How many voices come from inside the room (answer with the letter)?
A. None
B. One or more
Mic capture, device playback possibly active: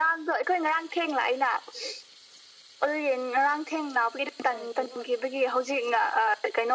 B